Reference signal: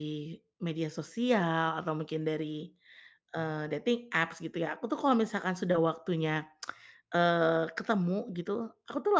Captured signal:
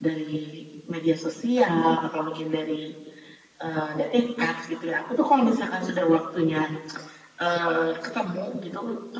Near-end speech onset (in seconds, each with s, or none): none